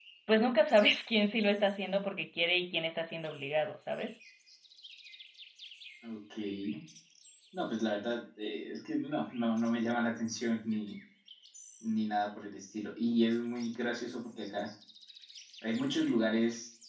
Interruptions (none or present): none